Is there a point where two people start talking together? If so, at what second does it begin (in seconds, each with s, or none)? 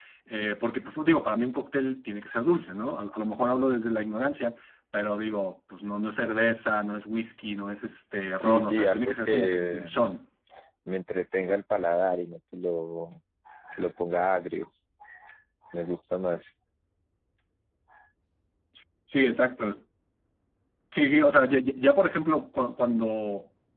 8.4 s